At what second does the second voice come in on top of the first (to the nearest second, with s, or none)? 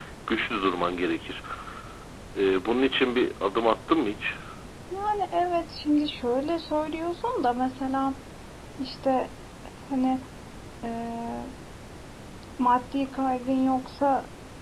none